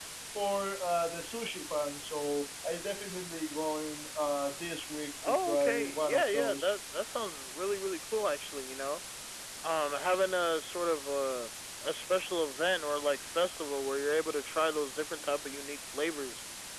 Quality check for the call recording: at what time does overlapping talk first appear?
5.2 s

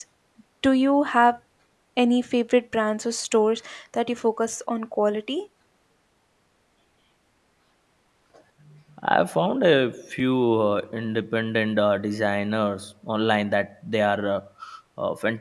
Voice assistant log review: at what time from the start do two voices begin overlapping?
none

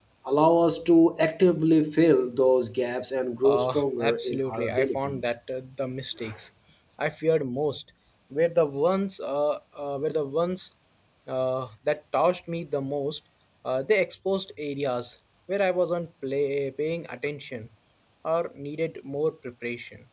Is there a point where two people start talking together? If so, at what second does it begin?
3.4 s

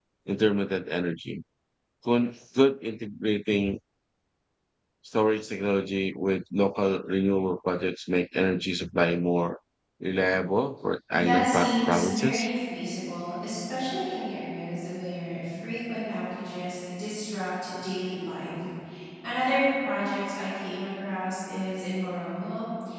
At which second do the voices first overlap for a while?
11.1 s

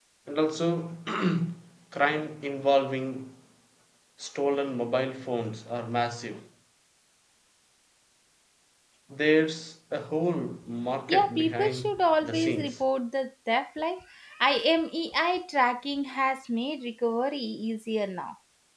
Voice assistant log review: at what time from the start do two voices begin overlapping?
11.1 s

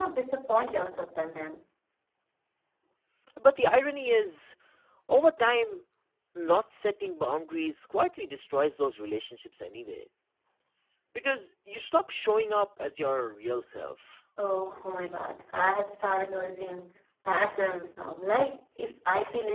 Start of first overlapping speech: none

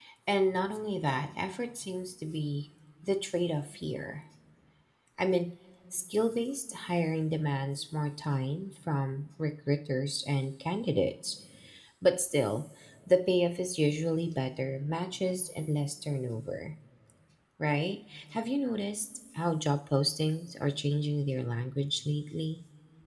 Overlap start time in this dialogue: none

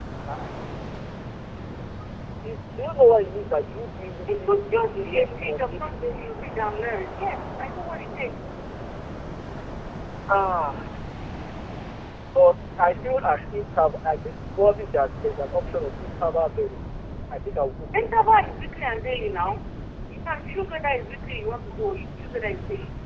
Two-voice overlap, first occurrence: 4.3 s

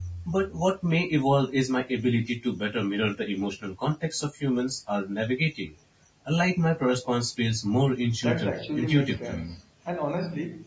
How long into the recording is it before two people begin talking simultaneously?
8.2 s

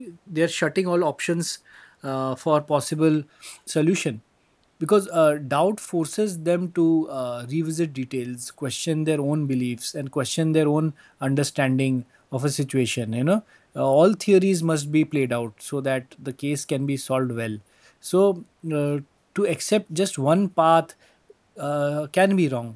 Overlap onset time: none

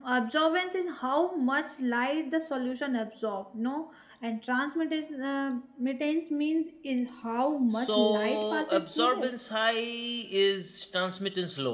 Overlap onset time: 7.7 s

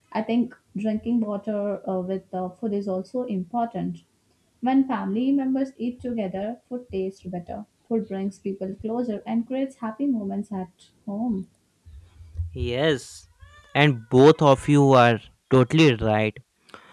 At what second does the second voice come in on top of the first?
none

